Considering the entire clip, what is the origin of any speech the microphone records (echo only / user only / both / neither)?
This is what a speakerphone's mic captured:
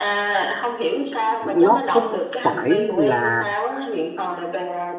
both